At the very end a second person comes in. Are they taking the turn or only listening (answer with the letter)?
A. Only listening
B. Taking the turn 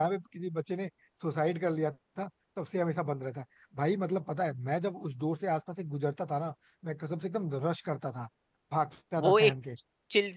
B